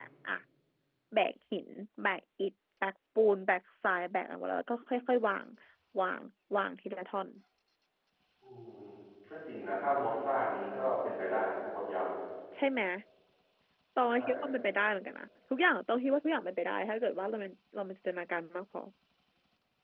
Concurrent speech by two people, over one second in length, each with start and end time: none

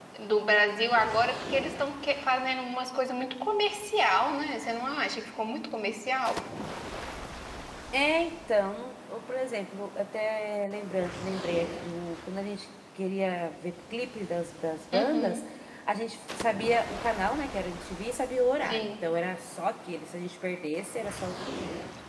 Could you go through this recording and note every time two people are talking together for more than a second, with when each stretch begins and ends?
none

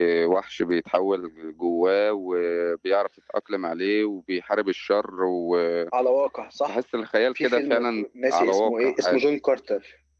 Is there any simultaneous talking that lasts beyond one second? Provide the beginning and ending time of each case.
7.4-9.2

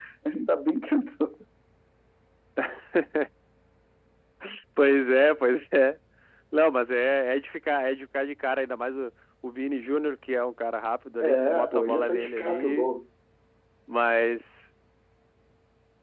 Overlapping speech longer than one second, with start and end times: 11.2-12.9

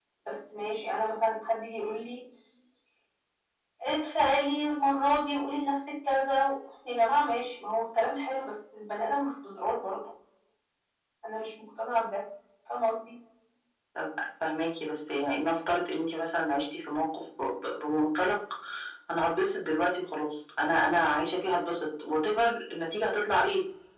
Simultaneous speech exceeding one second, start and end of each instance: none

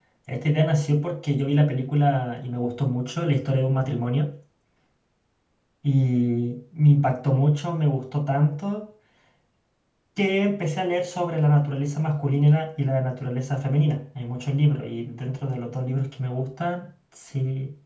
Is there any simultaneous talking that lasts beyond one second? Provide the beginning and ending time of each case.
none

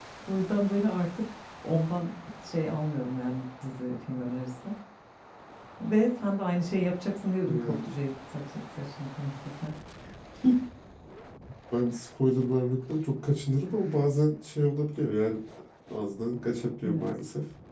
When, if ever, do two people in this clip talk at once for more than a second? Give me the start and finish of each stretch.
none

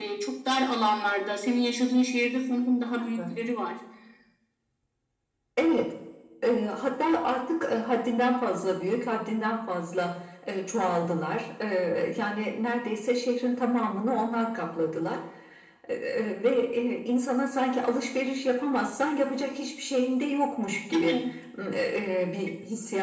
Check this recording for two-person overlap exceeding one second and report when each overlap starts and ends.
none

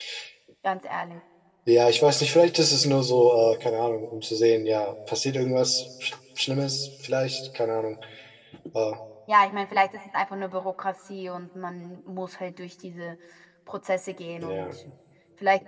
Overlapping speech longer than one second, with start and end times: none

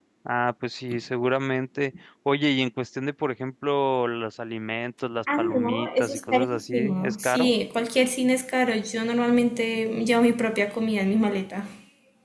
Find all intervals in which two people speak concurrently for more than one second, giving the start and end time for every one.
5.4-7.5

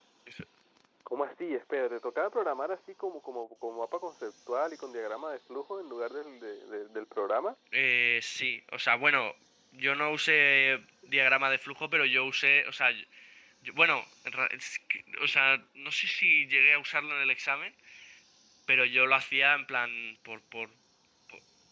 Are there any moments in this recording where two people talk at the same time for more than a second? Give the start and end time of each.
none

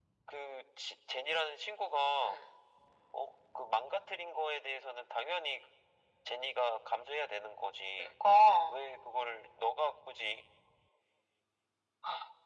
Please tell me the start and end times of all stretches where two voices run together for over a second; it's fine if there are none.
none

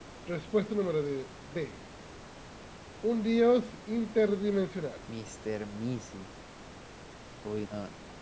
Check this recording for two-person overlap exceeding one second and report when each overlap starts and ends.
none

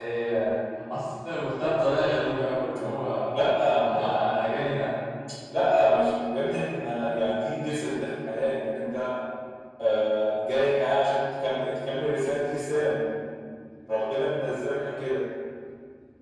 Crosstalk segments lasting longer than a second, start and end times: none

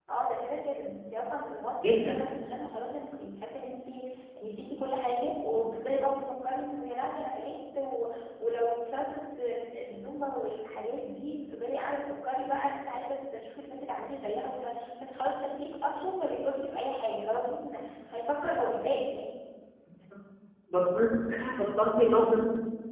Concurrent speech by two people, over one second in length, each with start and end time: none

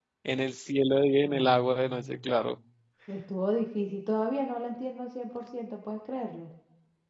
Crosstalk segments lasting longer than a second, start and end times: 1.2-2.5

